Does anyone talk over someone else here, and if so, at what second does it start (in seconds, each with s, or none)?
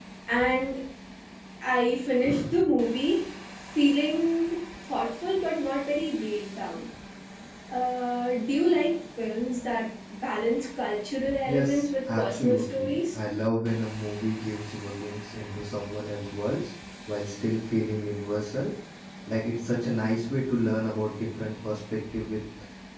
11.4 s